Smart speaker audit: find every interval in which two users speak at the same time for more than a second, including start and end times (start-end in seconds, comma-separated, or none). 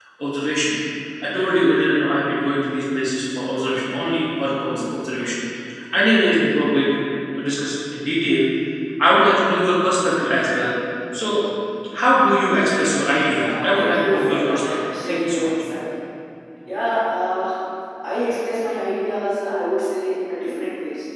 13.4-15.5